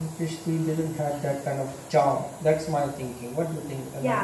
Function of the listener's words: taking over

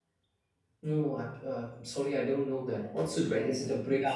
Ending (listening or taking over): taking over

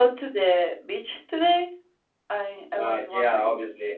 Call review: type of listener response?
taking over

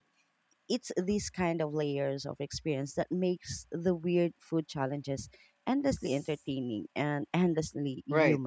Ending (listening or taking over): taking over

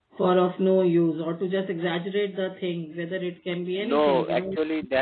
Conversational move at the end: taking over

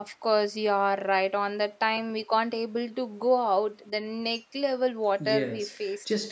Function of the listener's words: taking over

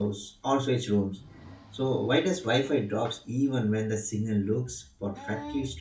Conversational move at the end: taking over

